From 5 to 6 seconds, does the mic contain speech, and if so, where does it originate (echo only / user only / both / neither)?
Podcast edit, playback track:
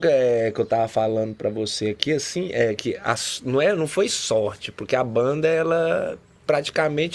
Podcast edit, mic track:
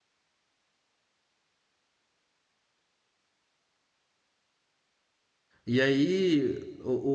user only